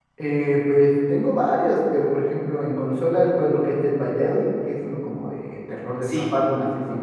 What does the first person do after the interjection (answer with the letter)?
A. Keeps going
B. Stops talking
A